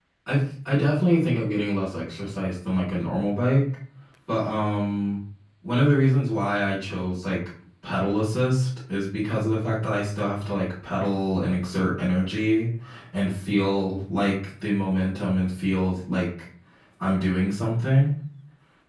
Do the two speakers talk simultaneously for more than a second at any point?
No

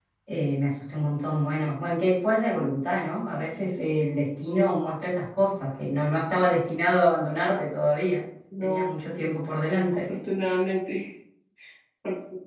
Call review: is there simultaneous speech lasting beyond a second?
No

